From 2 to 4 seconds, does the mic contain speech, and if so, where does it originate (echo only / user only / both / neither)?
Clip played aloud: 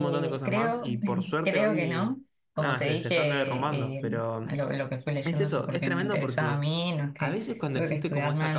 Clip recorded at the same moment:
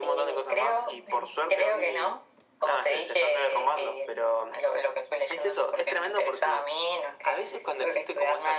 echo only